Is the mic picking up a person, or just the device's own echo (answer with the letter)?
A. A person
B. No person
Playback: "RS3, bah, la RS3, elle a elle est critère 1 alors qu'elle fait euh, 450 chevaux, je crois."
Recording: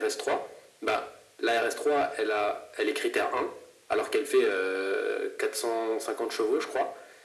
B